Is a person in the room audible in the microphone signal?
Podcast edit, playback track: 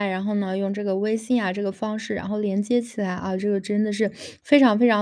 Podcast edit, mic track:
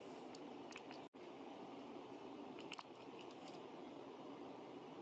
No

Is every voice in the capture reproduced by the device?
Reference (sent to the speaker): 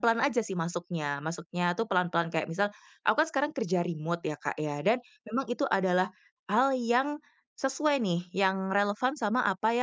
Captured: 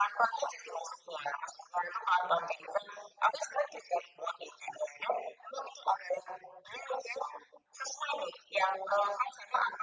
Yes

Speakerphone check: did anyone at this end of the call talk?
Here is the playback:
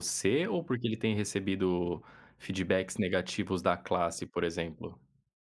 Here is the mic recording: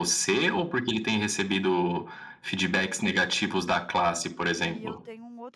Yes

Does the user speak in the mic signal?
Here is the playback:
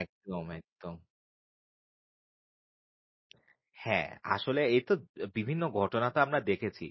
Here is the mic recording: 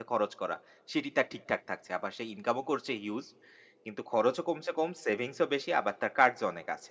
Yes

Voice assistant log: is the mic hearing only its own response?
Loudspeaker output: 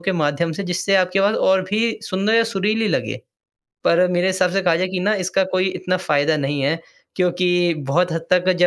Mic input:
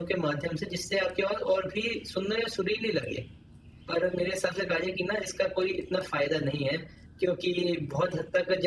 Yes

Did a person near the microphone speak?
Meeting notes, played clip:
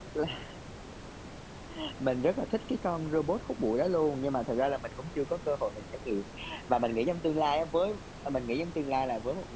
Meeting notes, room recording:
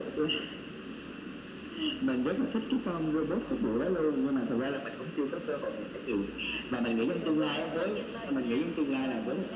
Yes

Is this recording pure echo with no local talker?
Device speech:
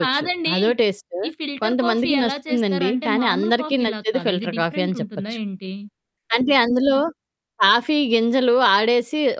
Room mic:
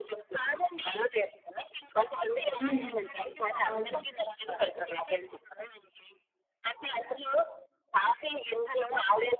No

